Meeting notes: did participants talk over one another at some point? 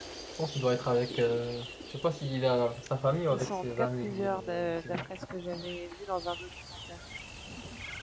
Yes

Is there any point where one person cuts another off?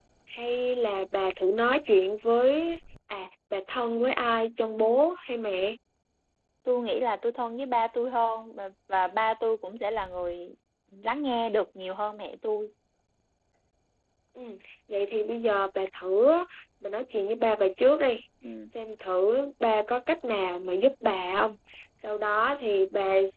No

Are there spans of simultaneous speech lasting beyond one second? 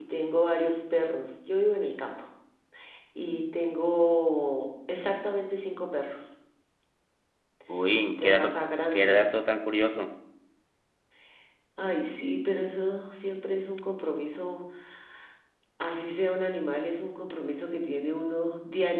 No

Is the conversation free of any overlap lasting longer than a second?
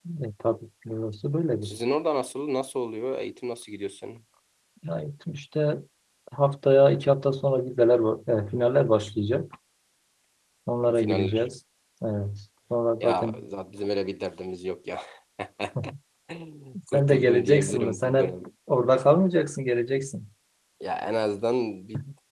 No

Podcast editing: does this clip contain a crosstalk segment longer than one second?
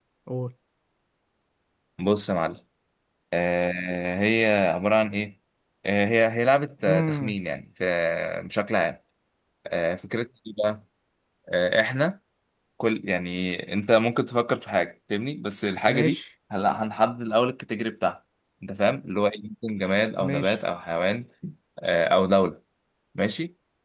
No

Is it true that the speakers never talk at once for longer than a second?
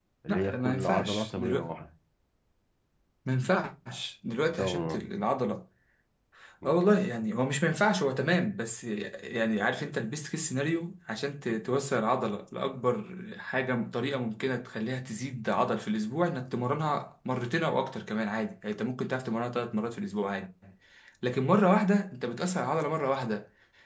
No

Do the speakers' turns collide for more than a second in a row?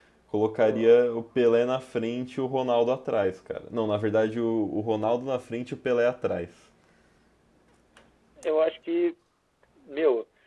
No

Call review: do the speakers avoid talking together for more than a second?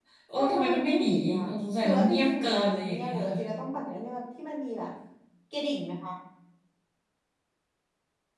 No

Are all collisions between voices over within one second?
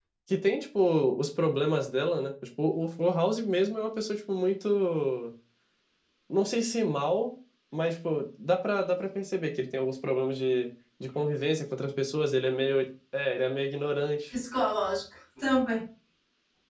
Yes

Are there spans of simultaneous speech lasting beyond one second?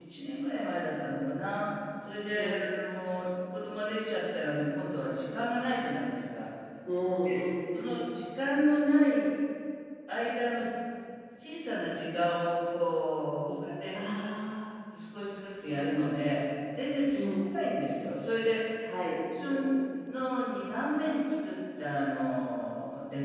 No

